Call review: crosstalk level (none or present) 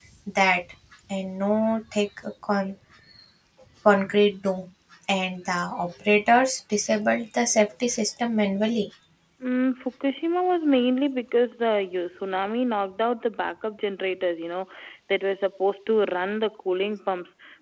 none